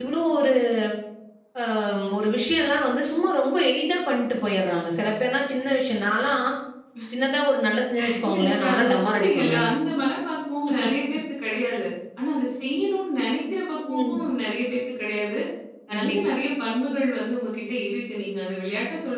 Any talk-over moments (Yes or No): Yes